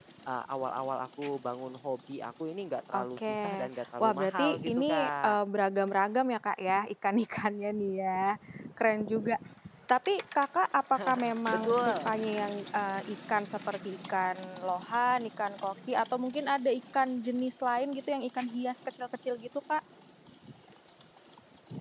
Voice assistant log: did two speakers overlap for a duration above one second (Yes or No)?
Yes